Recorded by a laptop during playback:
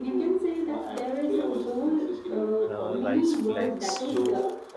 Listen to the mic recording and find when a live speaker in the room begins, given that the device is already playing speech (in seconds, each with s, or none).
2.7 s